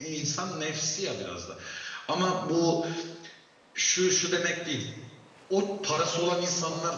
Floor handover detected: No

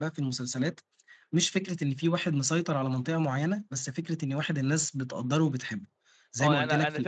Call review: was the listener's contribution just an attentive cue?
No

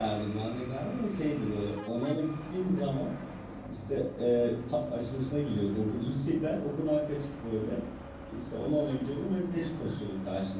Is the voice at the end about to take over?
No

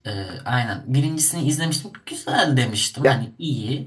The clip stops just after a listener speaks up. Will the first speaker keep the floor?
Yes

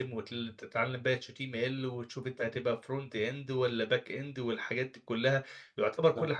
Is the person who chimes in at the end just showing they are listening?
Yes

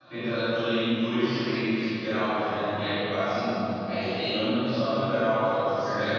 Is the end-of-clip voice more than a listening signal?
No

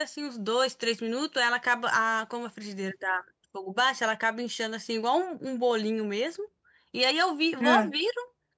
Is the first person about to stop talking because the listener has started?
No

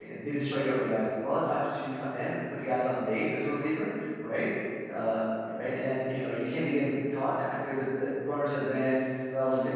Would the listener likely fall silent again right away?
Yes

